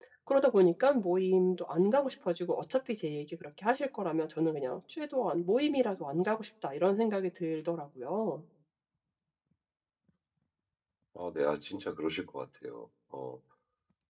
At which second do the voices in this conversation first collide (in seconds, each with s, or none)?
none